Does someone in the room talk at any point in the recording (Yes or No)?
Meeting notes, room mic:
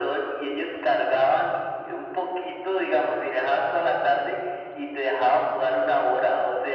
No